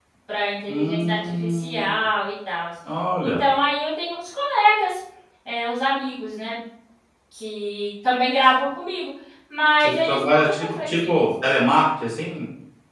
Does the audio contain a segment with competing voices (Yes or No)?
Yes